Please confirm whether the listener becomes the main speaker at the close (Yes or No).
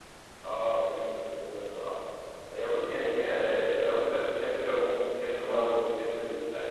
No